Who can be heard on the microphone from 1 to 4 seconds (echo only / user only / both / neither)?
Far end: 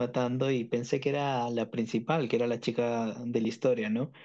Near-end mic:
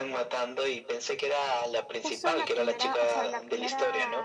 both